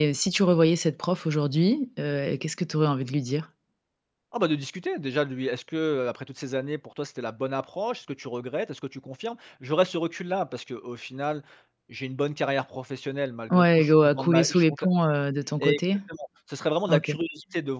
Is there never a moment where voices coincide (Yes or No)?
No